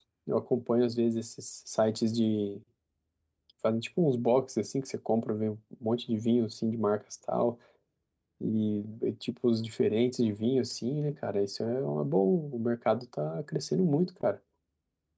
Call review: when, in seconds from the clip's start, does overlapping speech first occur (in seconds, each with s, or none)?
none